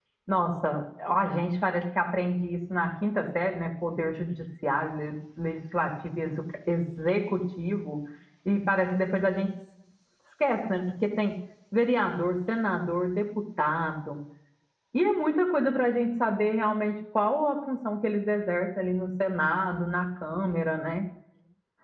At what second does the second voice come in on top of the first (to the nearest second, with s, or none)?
none